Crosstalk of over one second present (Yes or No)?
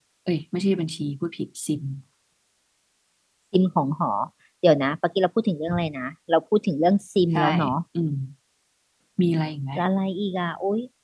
No